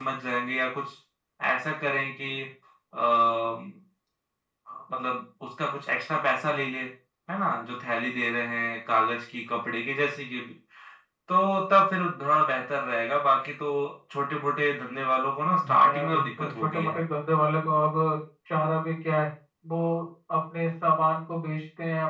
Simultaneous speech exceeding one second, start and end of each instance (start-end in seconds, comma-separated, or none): 15.7-17.0